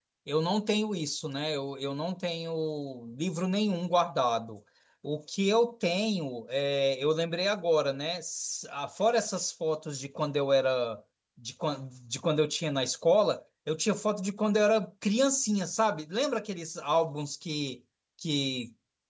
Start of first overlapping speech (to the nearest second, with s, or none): none